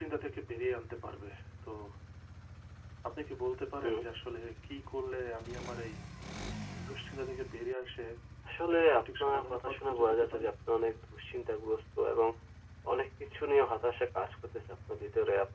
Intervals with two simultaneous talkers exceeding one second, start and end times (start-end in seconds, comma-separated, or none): 8.7-10.5